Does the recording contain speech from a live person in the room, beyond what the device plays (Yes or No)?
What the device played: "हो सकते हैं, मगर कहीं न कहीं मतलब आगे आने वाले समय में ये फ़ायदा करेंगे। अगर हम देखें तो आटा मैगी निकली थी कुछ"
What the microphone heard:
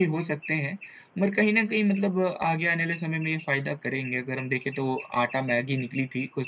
No